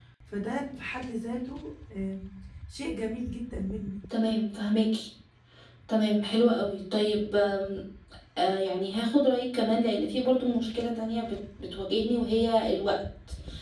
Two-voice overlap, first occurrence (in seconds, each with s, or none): none